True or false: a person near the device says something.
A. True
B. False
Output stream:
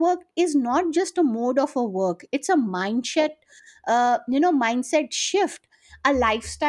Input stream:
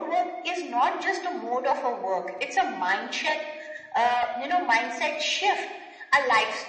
B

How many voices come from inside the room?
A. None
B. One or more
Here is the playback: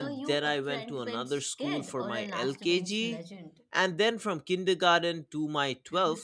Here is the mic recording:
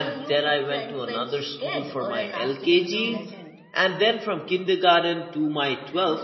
B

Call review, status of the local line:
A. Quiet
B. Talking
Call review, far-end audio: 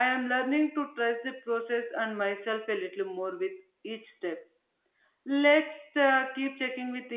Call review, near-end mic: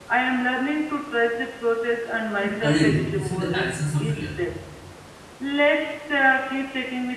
B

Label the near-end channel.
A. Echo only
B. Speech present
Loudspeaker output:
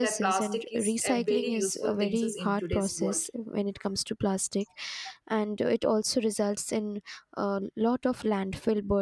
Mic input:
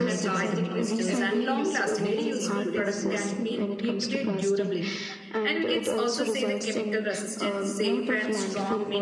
B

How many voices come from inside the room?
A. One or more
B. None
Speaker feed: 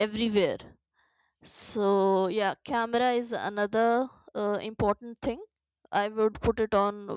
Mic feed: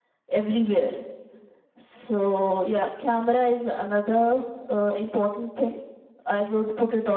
B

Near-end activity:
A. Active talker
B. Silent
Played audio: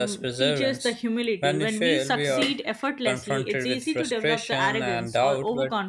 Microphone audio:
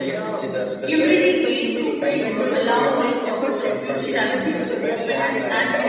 A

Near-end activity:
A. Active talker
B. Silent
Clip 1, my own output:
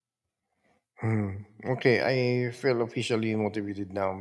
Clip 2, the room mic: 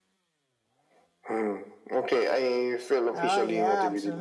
A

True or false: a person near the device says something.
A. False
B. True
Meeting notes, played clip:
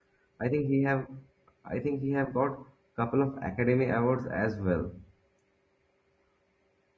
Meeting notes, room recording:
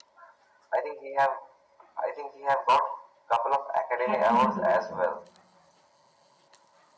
B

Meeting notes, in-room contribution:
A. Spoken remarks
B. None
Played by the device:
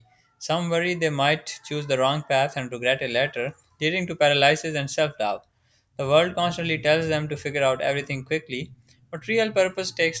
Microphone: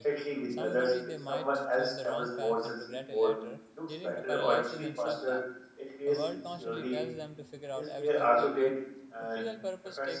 A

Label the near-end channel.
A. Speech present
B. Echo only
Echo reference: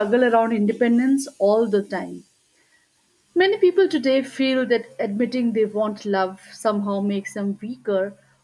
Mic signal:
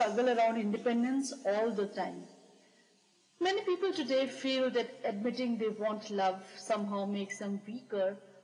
B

